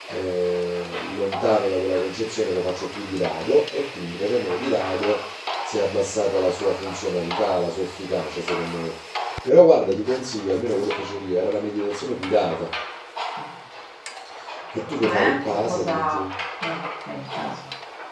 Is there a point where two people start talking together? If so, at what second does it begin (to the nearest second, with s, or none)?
15 s